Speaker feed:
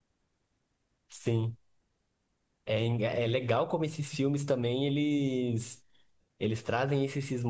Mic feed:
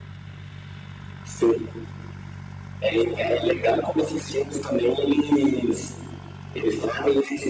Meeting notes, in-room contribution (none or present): none